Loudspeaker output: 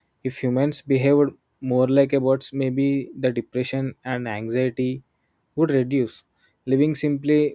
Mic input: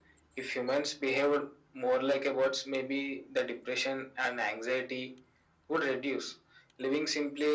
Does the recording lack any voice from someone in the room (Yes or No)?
Yes